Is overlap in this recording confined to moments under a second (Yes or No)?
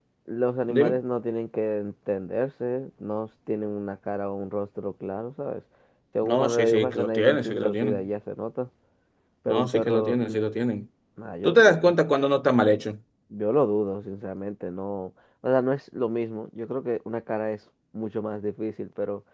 No